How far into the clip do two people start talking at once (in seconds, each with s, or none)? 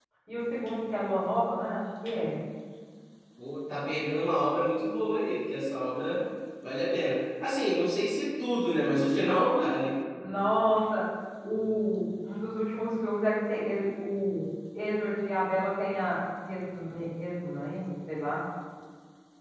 none